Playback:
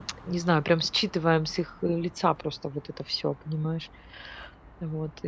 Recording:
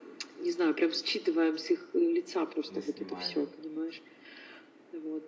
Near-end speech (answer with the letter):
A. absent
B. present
B